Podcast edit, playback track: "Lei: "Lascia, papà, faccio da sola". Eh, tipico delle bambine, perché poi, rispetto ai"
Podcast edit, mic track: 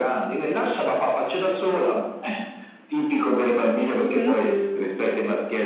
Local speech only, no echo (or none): Mh-mh.